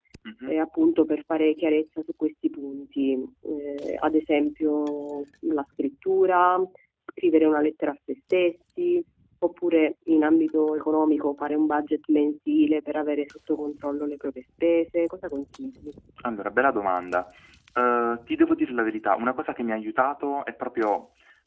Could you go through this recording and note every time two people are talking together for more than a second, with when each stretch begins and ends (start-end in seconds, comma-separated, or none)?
none